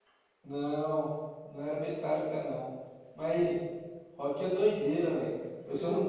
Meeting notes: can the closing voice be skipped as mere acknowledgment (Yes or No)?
Yes